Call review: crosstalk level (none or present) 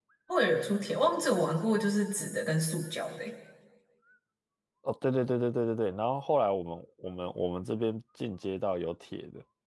none